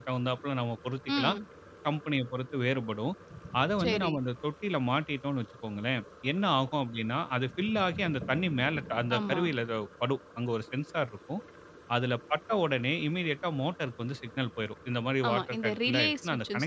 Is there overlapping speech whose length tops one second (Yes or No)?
Yes